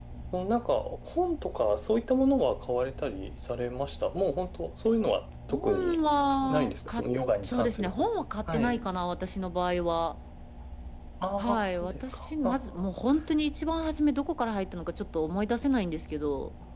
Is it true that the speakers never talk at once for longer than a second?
No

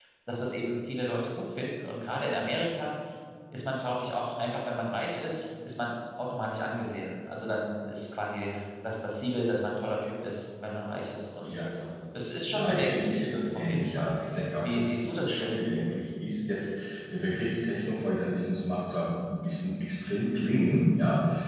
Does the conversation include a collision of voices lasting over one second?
Yes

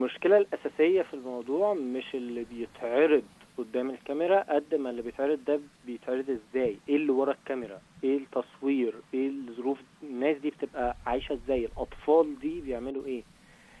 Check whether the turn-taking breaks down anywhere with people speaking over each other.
No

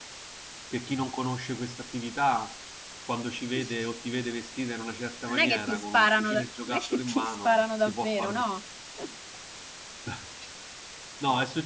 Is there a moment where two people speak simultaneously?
Yes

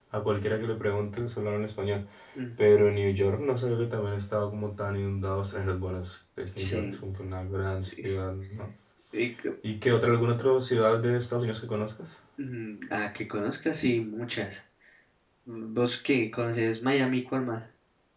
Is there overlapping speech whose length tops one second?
No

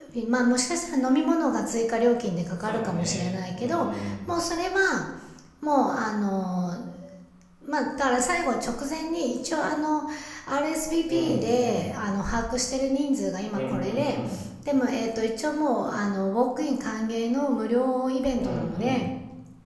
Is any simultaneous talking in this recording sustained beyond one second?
Yes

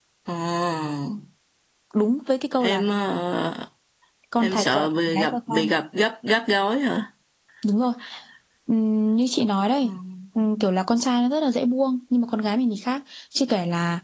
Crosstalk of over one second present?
Yes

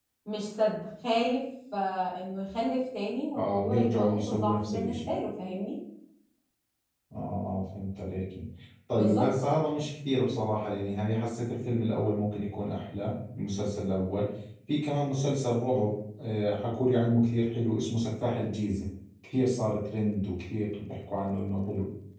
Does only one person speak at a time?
No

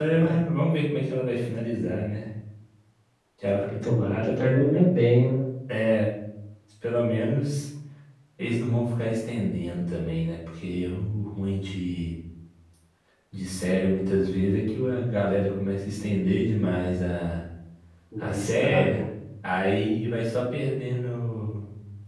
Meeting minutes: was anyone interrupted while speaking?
Yes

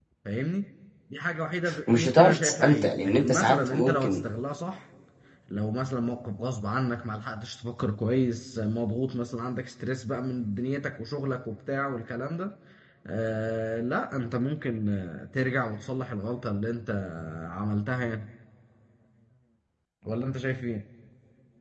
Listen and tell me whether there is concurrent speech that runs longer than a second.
Yes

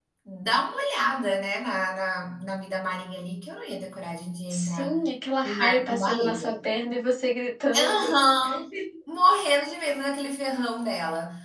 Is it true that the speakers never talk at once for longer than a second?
No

